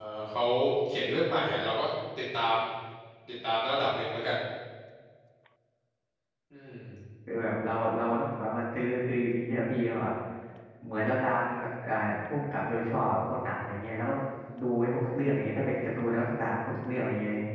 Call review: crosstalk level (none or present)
none